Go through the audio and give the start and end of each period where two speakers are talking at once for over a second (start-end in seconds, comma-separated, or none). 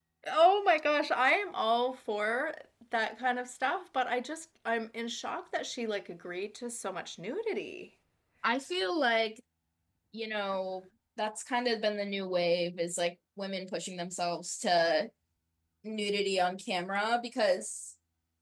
none